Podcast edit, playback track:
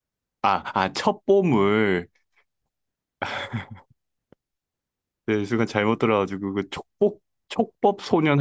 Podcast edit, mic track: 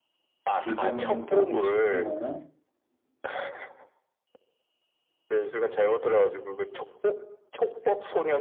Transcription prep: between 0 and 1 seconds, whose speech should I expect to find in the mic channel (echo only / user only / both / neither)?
both